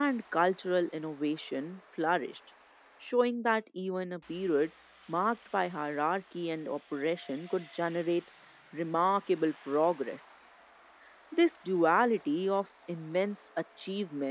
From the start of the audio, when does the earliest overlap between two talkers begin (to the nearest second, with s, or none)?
none